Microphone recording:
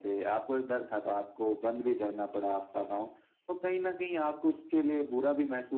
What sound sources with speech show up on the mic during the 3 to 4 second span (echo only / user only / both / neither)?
echo only